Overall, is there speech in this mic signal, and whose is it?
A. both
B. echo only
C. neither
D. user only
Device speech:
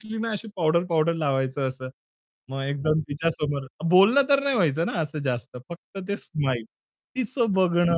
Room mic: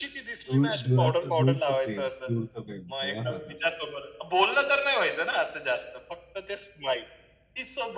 A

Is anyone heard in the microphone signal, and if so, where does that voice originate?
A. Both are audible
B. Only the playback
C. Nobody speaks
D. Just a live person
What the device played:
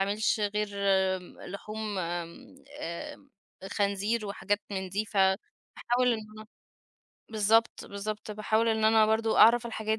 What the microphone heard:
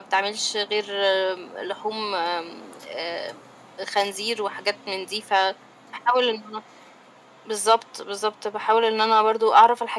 B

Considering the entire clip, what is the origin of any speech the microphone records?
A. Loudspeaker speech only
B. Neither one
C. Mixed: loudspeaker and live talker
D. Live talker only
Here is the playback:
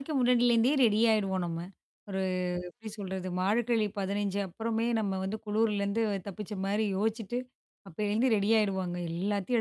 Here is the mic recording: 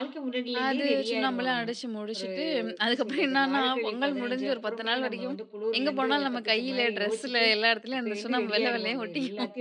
C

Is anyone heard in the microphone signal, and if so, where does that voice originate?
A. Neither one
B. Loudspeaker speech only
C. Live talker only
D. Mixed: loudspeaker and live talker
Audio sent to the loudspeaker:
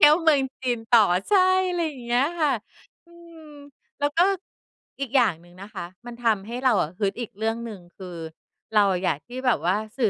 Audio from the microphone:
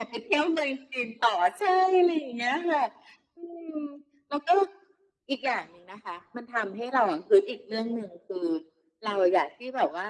B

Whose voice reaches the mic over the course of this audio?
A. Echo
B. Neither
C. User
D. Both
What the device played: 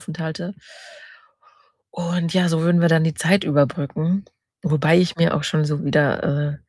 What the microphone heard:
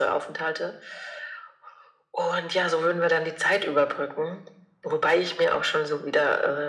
A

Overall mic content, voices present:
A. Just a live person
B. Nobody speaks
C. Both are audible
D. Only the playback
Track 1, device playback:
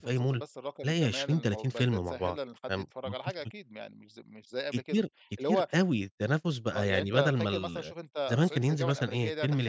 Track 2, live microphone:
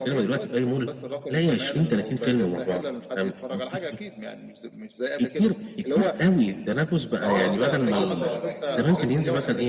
C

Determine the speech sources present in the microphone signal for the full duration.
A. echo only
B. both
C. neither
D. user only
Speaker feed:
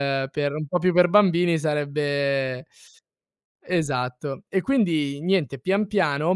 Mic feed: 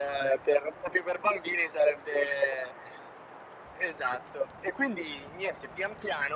A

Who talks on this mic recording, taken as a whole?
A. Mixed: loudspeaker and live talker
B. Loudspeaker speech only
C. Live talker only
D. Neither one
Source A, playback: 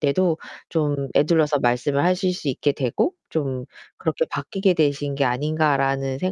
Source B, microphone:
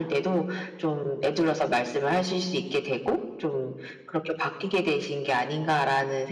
B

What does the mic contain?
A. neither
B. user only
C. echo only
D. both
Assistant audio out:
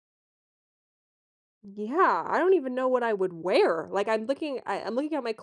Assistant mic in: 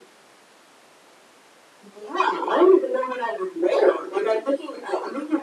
C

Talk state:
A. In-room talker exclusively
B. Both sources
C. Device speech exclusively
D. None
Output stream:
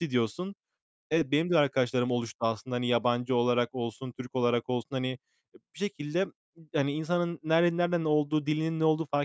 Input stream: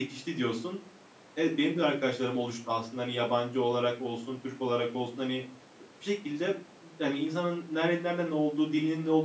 C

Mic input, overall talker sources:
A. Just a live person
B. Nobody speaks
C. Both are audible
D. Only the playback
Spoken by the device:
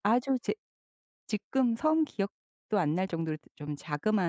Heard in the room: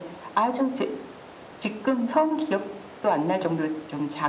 D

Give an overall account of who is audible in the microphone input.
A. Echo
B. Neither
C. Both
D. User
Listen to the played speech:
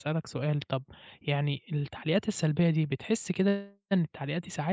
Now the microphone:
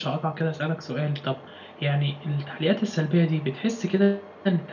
A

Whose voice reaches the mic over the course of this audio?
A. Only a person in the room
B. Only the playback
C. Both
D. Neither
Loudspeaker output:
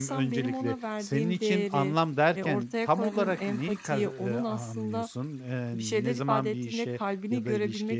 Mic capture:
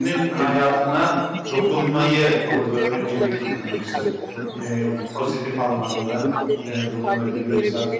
C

